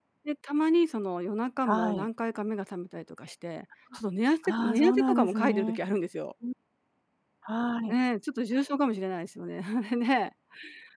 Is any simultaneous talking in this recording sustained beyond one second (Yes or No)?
Yes